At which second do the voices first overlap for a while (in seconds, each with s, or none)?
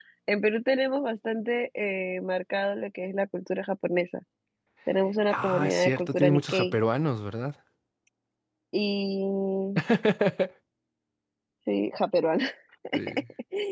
5.3 s